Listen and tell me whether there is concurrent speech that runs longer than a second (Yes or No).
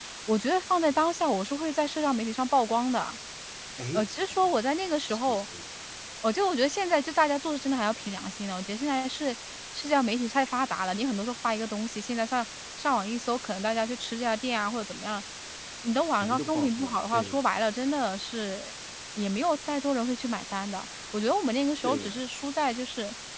Yes